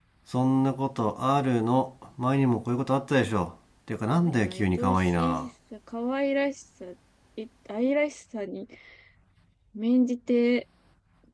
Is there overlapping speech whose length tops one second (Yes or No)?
Yes